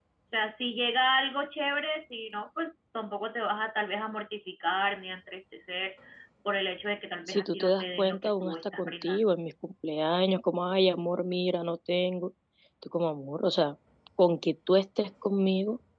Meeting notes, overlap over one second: present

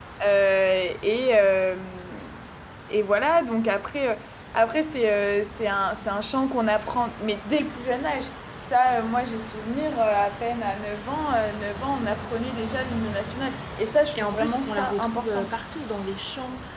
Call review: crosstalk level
present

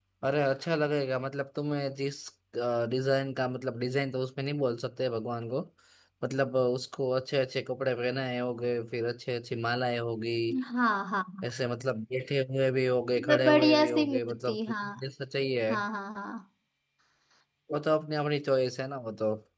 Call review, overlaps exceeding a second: present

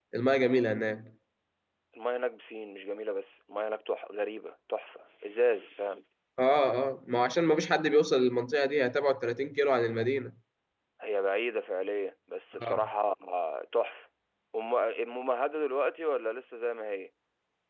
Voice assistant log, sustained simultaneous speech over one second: none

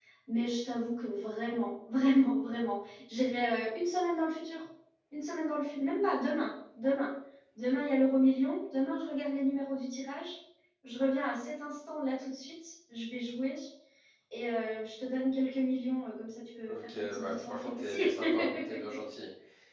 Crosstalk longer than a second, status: present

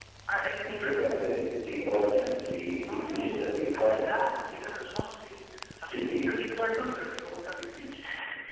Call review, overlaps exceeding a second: present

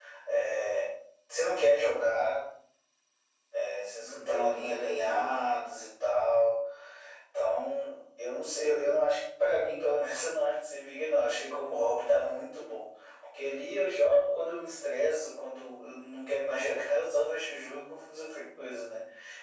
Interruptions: present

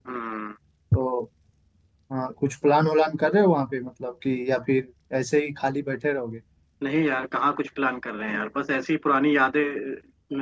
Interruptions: none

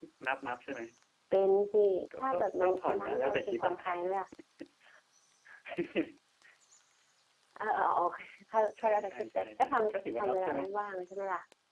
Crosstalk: present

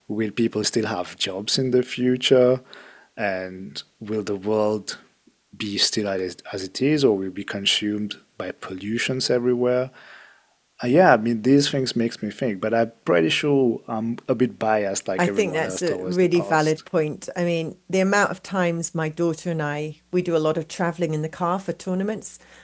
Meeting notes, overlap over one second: present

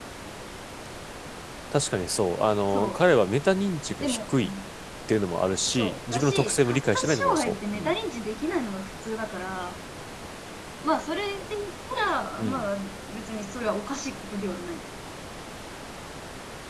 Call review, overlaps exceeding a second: present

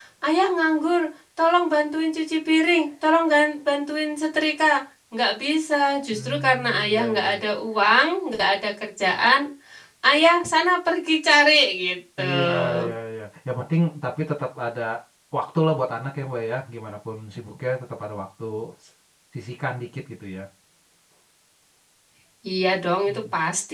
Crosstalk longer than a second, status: present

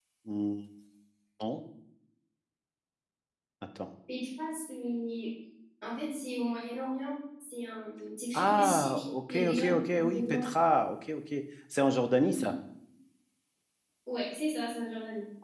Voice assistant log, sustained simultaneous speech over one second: present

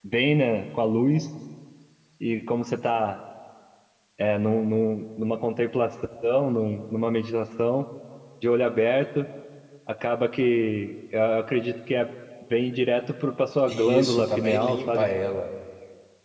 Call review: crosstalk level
present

